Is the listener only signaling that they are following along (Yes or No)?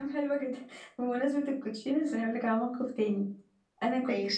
Yes